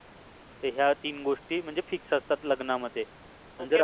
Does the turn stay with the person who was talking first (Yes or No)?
No